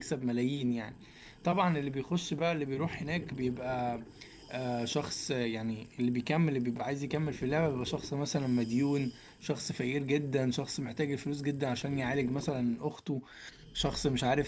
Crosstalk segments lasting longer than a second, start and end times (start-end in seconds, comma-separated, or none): none